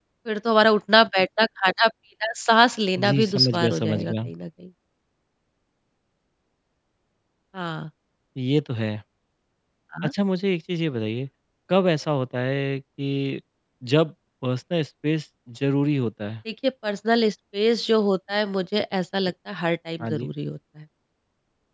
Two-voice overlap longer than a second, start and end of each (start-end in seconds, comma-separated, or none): 3.0-4.3